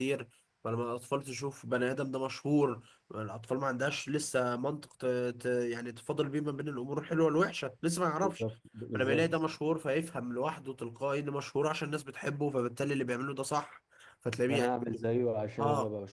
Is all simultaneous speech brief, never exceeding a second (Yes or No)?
Yes